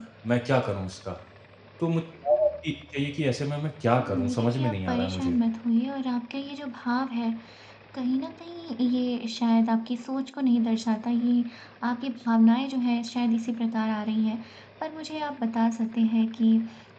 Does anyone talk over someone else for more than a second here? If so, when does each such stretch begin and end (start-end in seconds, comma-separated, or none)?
4.0-5.4